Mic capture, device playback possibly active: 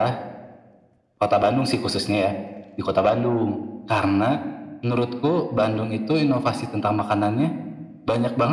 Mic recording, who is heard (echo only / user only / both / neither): echo only